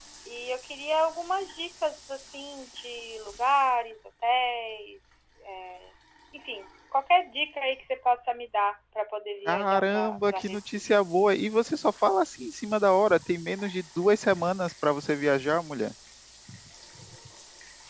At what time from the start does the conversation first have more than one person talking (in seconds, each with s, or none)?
9.5 s